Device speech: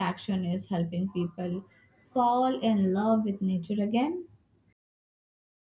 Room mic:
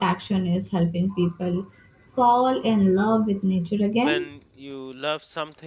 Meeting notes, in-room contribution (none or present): present